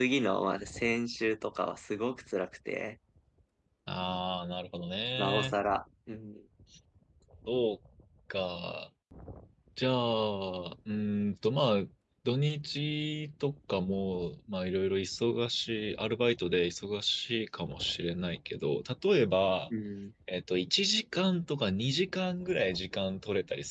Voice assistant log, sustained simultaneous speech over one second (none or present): none